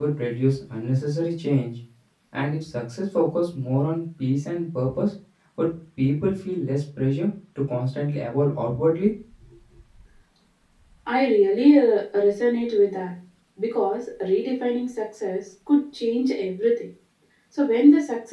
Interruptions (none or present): none